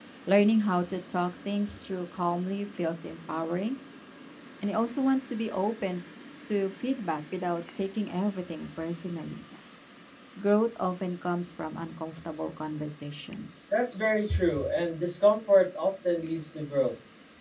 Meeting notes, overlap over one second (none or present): none